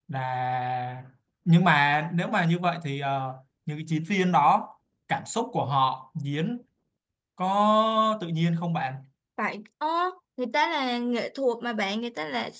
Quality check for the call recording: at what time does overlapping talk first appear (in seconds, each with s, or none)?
none